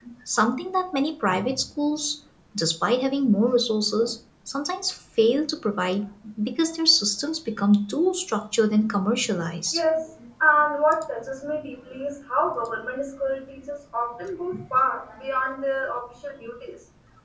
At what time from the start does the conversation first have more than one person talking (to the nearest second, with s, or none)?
none